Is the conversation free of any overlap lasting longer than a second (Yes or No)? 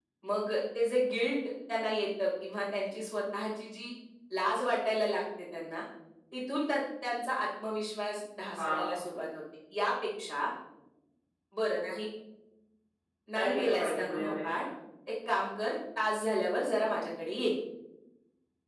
No